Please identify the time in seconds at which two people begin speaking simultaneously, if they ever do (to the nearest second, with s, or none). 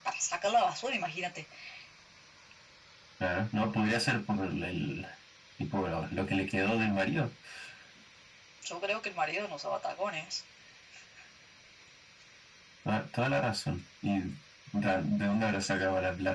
none